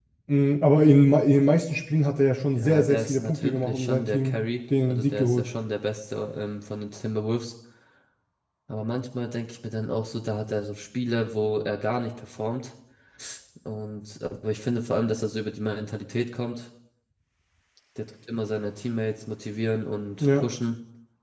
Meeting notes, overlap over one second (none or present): present